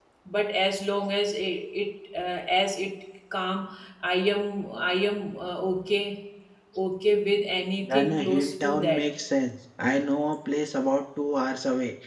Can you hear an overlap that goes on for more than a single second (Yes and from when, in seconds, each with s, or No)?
Yes, from 7.8 s